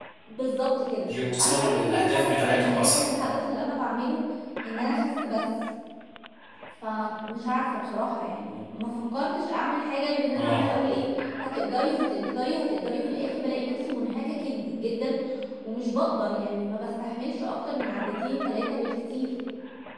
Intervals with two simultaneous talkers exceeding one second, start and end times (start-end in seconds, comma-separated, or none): 1.4-3.0